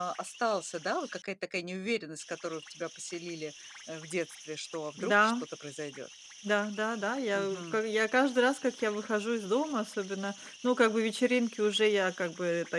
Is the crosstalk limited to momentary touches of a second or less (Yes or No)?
Yes